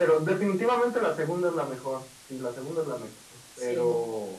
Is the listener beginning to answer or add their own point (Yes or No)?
No